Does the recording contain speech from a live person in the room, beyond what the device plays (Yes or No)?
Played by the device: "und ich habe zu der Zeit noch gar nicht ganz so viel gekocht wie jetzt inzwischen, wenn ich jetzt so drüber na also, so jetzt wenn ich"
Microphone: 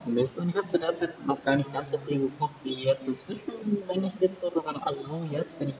Yes